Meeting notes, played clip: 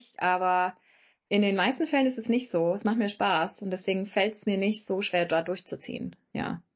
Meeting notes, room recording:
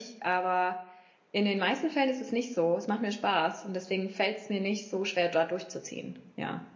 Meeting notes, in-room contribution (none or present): none